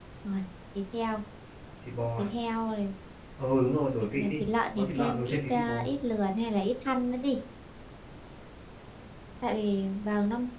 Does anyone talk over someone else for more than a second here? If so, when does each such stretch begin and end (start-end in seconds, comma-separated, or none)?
4.0-5.7